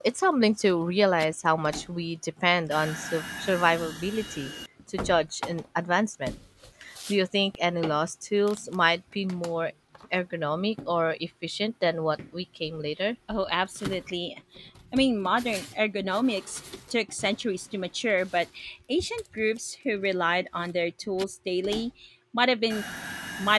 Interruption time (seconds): none

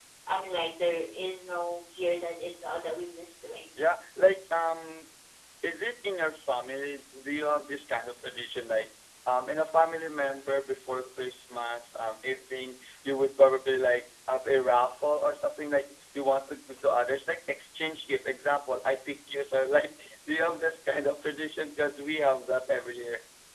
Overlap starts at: none

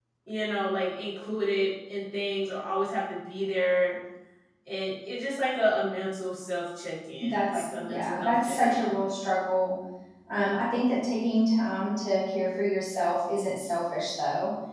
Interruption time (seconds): 7.2 s

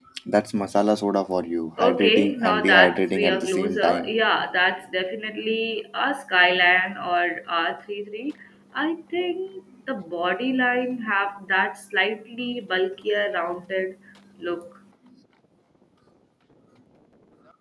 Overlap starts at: 1.8 s

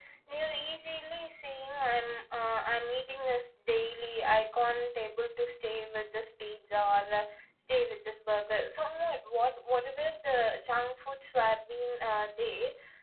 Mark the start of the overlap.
none

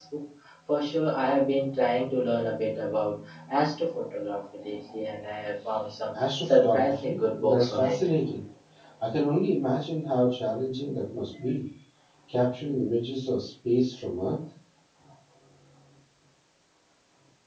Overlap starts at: 6.4 s

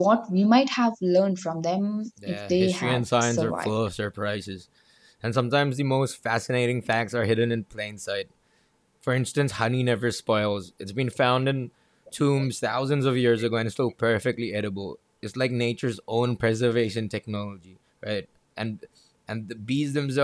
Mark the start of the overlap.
2.2 s

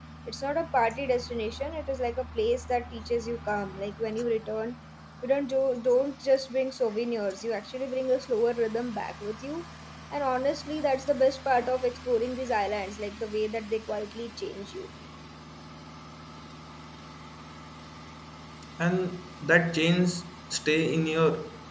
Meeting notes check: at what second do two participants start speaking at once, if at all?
none

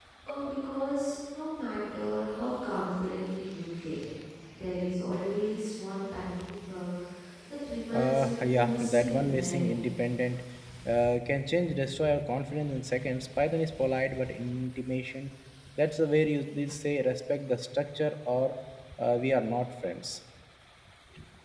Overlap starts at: 7.9 s

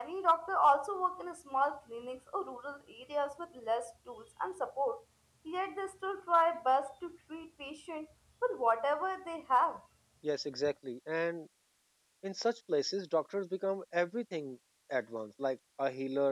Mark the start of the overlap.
none

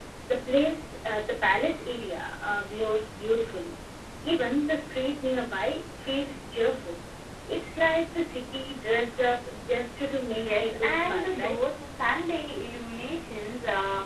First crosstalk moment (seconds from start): 10.4 s

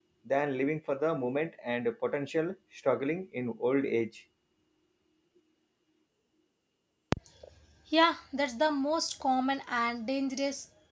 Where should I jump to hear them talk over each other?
none

